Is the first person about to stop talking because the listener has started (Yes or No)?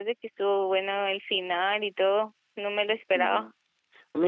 Yes